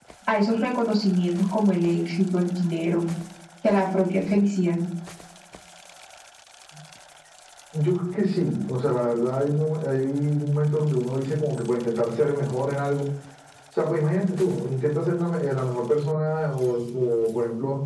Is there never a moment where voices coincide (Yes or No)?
Yes